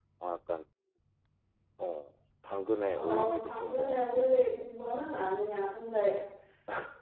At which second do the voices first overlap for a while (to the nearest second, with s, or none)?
3 s